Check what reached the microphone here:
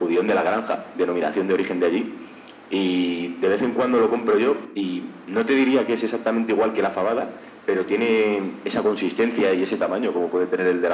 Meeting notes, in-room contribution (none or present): none